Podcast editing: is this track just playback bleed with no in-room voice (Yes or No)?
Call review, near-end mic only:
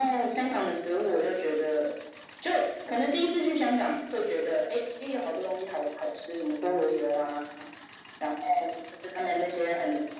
Yes